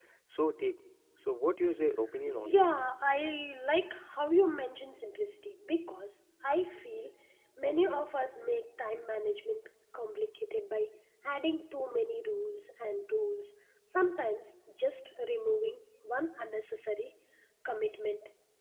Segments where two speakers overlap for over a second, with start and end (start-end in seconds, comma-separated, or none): none